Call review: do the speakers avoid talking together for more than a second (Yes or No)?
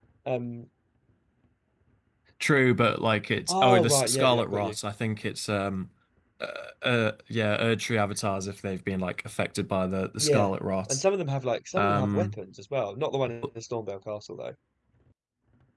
No